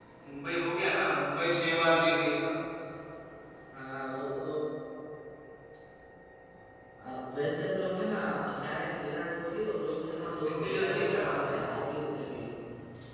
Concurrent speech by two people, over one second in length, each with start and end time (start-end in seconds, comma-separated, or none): 10.2-11.7